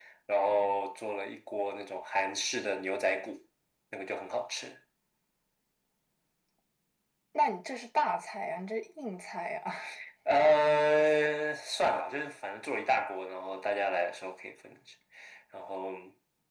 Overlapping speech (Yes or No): No